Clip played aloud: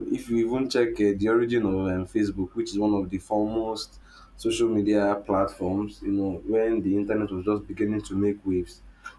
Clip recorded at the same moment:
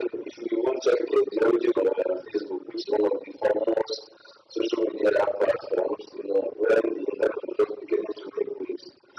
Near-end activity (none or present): none